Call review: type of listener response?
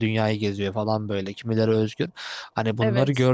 listening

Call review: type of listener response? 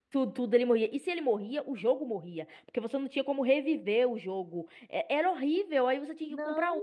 taking over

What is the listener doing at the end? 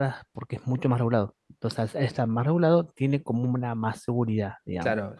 taking over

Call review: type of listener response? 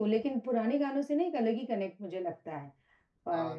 listening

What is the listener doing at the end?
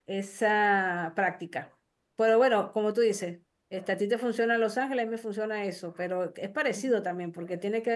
listening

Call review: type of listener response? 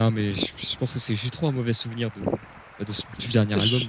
taking over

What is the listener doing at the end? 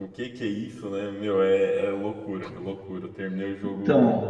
listening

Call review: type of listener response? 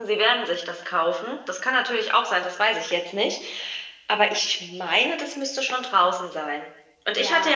listening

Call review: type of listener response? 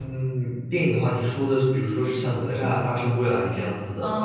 taking over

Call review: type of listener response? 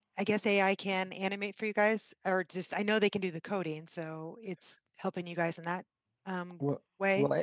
taking over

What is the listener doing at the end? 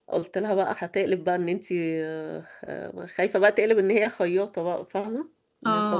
listening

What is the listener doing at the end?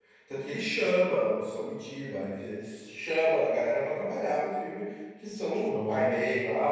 listening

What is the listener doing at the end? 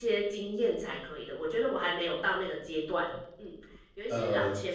listening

